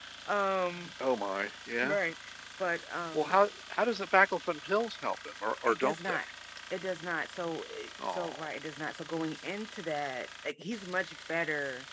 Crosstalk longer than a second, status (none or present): none